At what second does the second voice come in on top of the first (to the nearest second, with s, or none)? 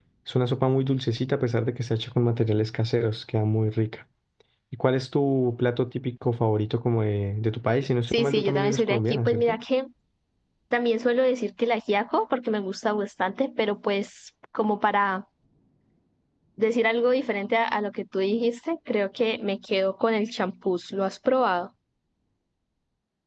8 s